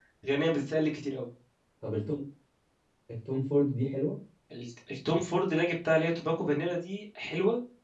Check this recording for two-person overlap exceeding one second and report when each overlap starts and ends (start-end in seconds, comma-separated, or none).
none